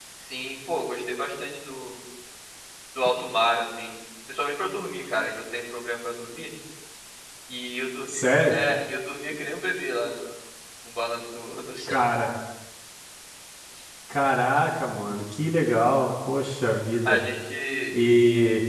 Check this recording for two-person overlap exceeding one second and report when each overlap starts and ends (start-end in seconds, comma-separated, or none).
none